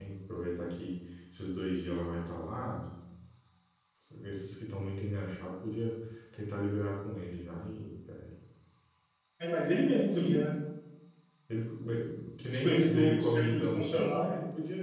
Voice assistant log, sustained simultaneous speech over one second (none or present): present